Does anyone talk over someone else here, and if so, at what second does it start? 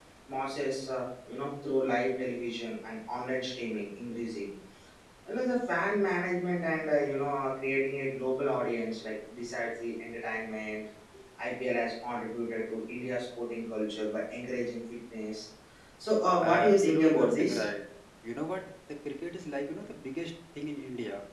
16.4 s

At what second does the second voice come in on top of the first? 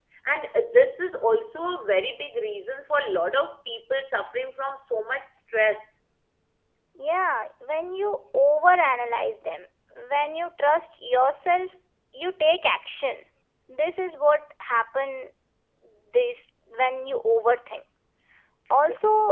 none

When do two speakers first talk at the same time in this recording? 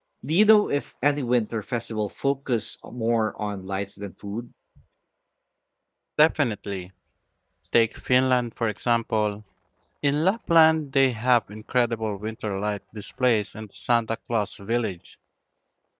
none

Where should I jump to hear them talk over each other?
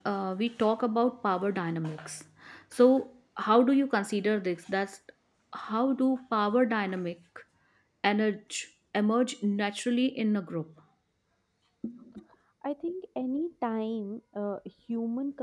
none

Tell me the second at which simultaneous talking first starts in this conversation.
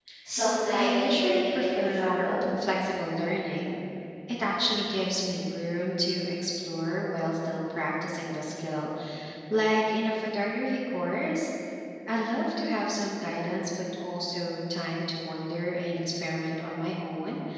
0.7 s

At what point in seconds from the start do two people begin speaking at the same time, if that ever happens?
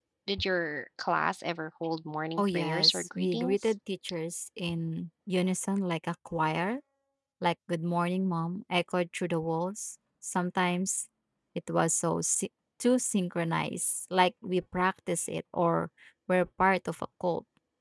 2.4 s

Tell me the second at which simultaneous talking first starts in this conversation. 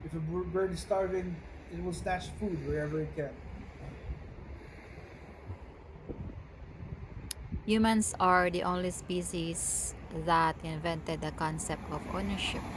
none

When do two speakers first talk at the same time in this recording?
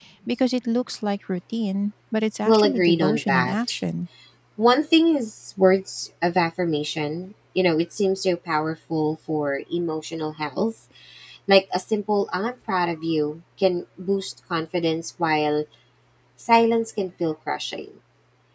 2.5 s

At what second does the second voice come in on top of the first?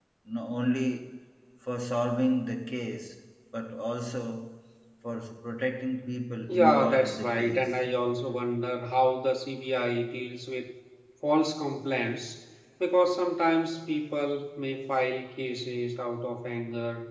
6.5 s

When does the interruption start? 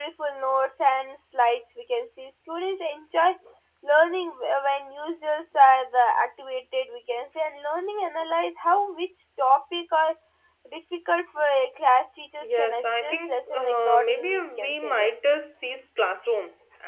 12.4 s

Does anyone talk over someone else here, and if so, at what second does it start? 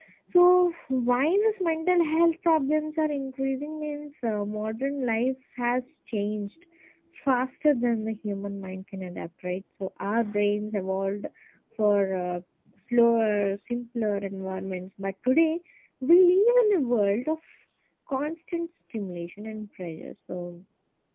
none

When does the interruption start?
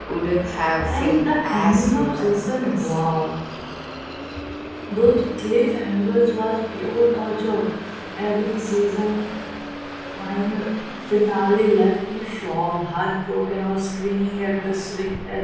0.8 s

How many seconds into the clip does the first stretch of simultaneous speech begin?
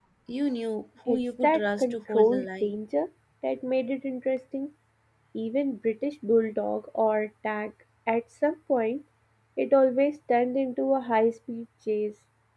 1.1 s

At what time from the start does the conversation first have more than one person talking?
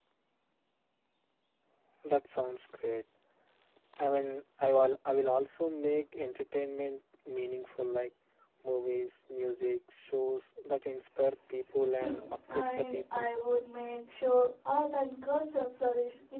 12.0 s

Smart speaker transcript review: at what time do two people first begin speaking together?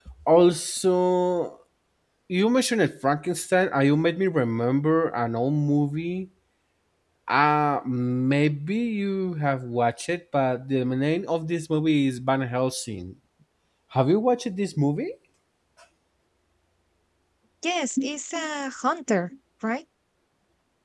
none

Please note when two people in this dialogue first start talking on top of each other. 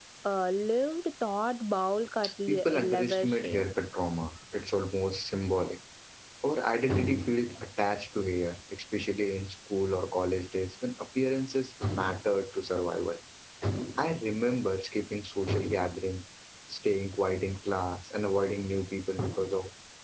2.2 s

